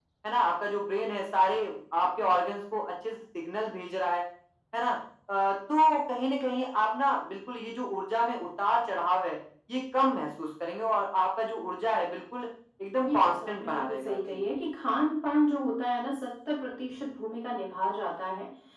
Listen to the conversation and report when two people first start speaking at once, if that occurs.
13.0 s

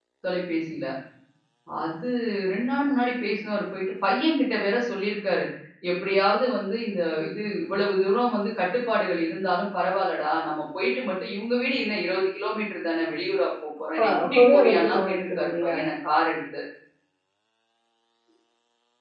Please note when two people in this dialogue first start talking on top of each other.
14.0 s

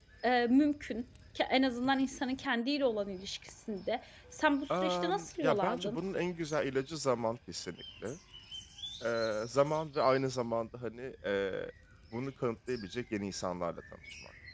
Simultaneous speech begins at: 4.7 s

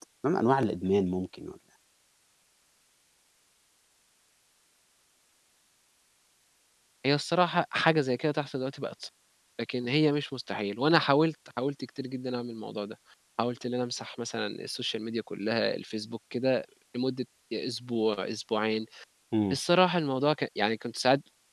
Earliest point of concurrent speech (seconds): none

